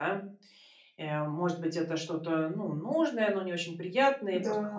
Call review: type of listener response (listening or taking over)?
listening